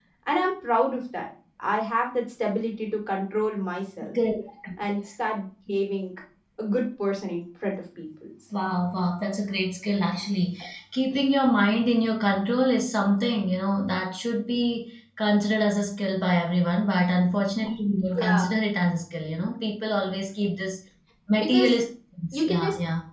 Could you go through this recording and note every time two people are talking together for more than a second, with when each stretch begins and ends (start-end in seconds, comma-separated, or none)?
none